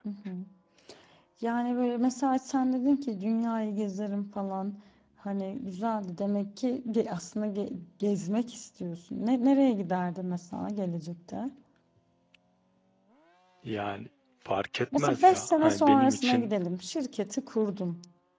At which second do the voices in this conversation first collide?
14.9 s

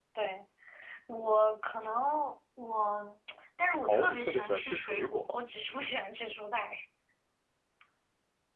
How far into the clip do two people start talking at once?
3.9 s

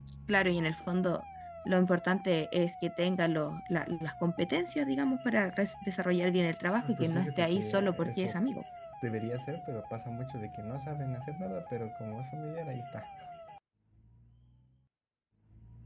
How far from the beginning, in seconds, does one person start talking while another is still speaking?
6.8 s

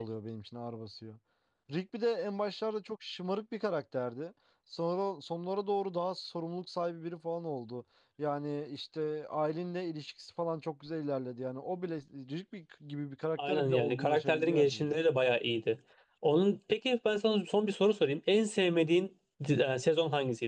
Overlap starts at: 13.4 s

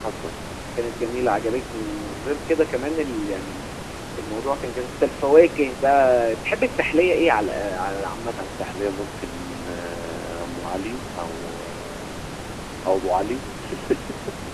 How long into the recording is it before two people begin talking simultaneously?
none

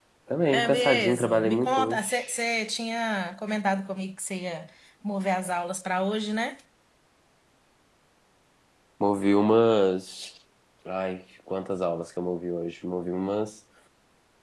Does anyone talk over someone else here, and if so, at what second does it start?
0.5 s

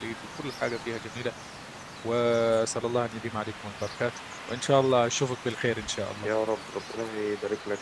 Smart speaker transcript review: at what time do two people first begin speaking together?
none

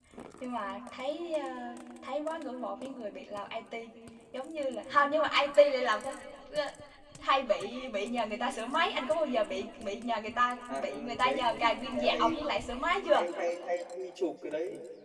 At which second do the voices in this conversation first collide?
10.7 s

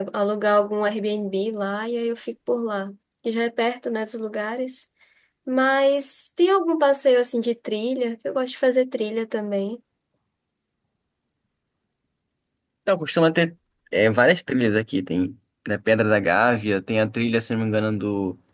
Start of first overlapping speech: none

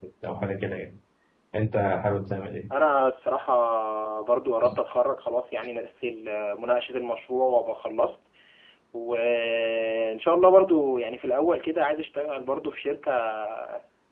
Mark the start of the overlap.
none

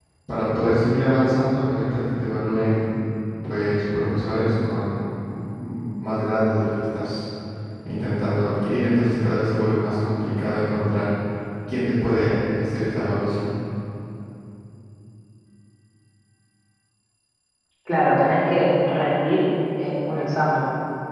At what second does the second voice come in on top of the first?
none

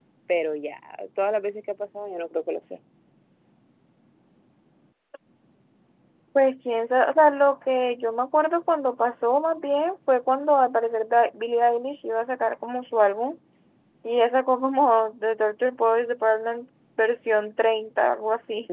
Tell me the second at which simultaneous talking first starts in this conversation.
none

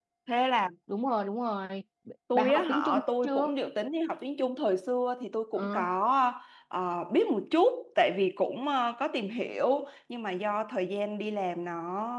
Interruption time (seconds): 2.4 s

